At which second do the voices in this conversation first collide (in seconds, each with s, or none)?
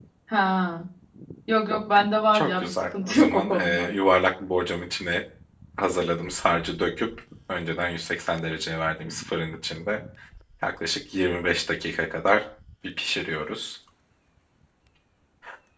2.3 s